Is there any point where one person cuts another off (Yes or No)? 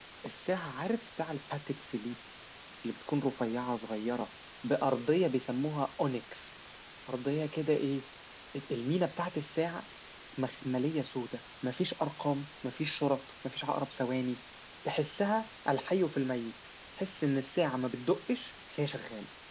No